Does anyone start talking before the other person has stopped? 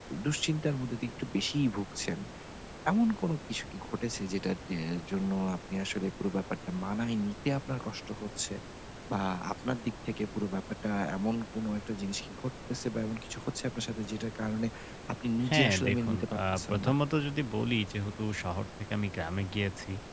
Yes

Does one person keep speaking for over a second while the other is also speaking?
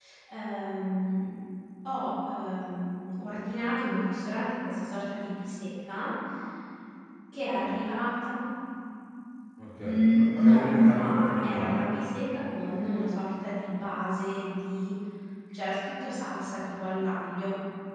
Yes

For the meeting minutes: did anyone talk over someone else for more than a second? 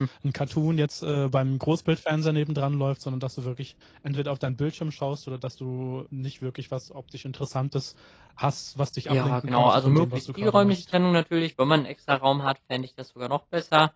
Yes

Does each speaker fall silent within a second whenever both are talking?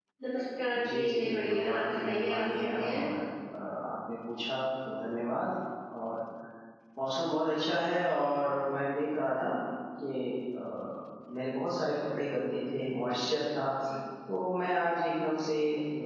No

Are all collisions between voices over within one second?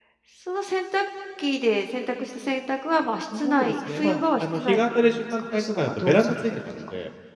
No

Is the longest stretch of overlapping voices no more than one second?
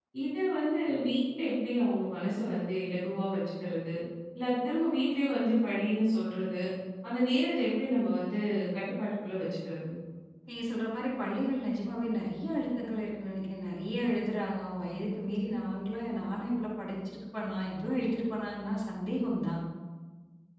Yes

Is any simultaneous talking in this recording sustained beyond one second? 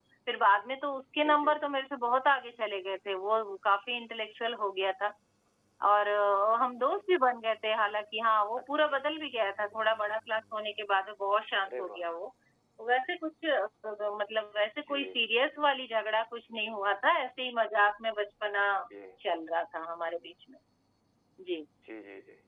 No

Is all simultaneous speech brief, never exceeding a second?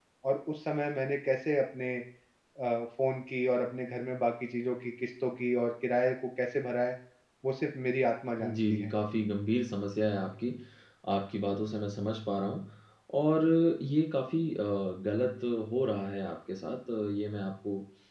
Yes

